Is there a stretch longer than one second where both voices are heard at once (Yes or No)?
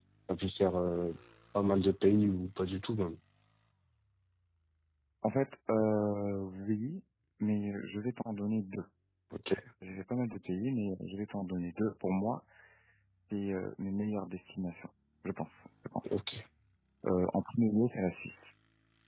No